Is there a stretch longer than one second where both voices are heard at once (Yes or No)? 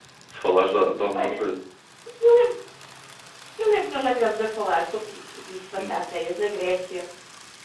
No